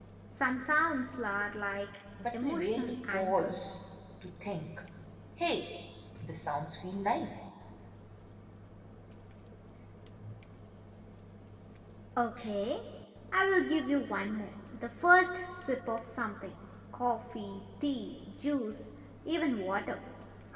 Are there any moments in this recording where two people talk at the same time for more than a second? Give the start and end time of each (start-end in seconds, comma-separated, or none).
2.3-3.5